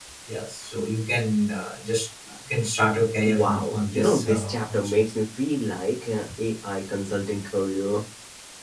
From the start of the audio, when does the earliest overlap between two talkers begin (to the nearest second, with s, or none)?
3 s